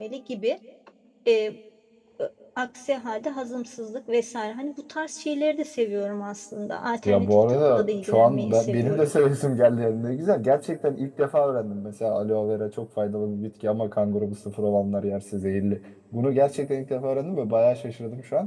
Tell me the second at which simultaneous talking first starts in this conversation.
7.0 s

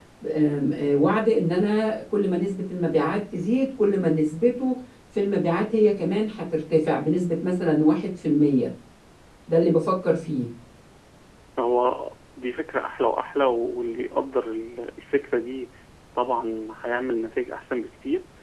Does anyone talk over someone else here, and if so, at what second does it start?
none

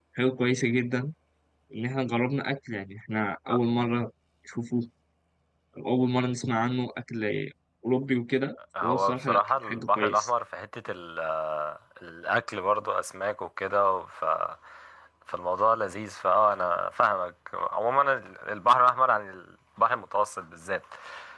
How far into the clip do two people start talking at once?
8.7 s

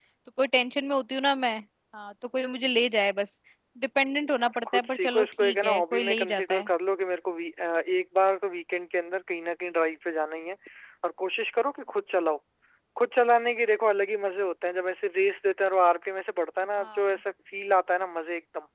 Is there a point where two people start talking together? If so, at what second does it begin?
4.4 s

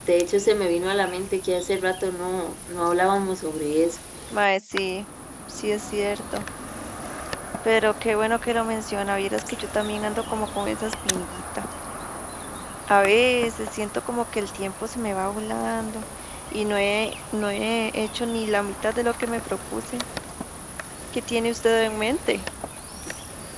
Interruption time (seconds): none

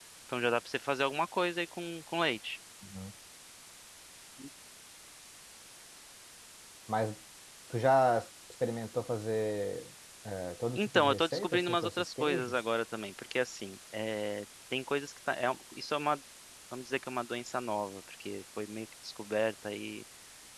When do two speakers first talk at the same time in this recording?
10.8 s

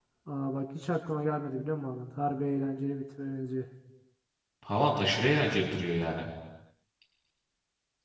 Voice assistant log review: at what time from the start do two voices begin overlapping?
none

